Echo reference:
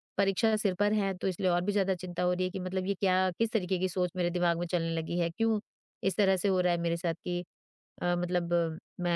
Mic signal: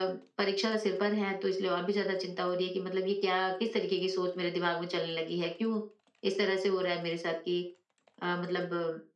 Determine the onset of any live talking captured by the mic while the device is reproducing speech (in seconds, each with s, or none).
none